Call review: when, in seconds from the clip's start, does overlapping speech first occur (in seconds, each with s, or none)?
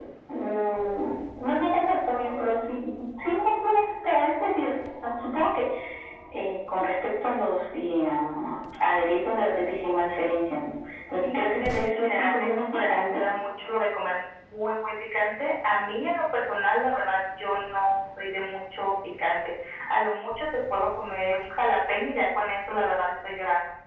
11.2 s